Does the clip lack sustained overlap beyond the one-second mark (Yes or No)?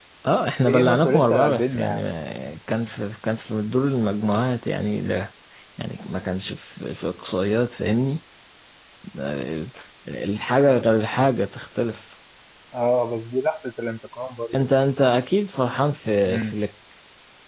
No